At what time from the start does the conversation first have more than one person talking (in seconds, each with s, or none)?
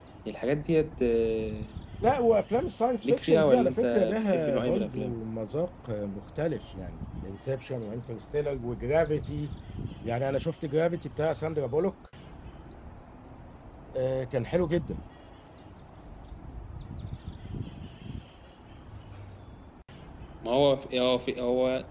3.0 s